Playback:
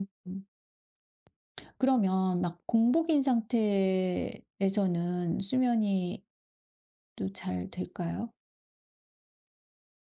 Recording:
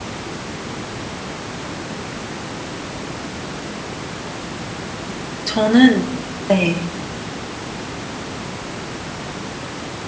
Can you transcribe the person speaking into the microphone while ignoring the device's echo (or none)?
저는 네.